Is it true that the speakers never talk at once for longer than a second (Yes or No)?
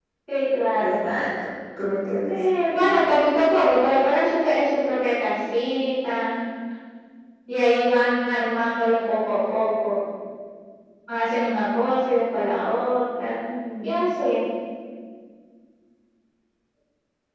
Yes